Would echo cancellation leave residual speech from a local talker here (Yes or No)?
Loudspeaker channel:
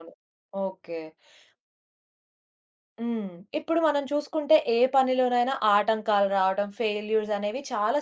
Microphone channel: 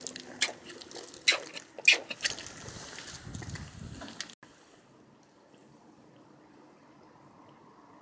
No